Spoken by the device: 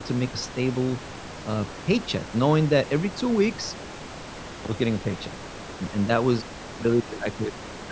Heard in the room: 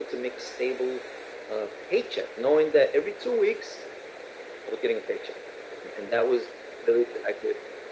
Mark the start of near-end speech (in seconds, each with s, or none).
none